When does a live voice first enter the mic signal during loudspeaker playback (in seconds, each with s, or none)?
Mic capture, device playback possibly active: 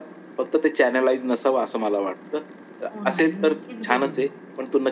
2.9 s